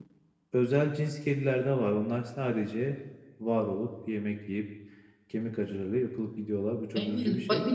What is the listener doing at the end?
taking over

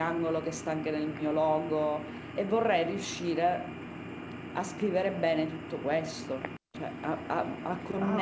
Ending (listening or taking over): taking over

